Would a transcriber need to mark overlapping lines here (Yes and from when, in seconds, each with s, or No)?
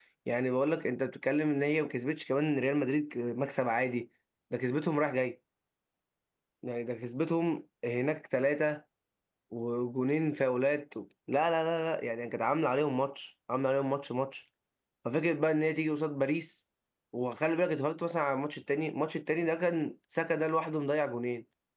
No